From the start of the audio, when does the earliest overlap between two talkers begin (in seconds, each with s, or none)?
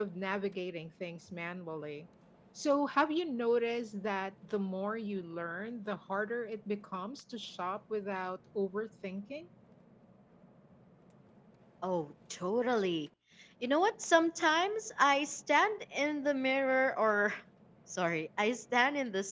none